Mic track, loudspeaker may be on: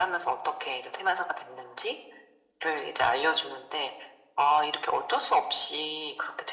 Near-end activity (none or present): none